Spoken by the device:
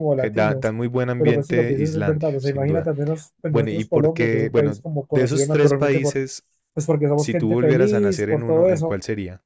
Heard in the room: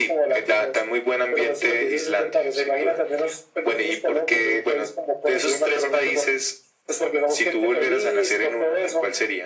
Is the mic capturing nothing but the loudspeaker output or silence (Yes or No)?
Yes